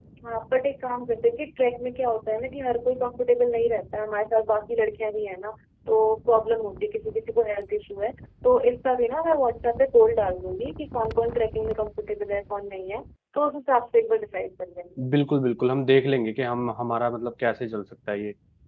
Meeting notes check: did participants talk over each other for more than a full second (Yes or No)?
No